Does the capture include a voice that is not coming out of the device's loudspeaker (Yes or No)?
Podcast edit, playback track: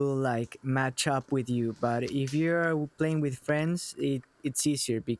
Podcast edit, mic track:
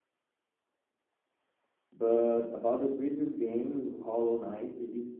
Yes